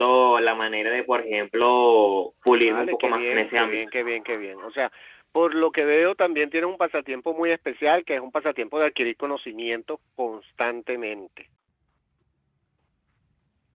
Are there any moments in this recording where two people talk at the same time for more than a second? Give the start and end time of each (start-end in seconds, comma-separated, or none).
2.6-3.9